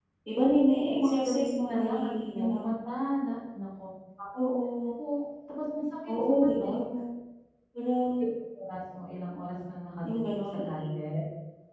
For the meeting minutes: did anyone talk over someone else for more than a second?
Yes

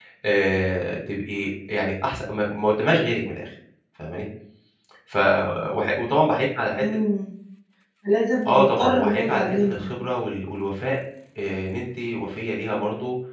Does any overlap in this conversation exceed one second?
Yes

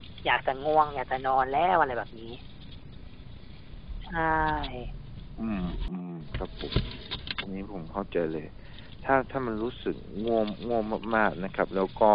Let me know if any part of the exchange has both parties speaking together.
No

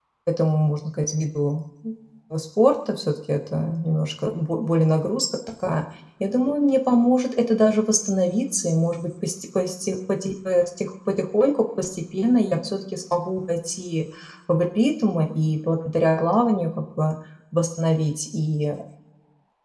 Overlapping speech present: No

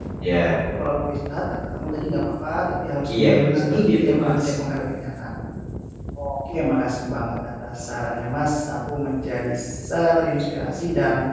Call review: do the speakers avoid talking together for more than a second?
No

